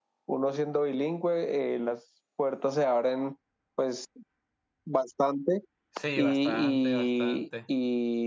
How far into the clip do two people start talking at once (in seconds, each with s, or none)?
6.2 s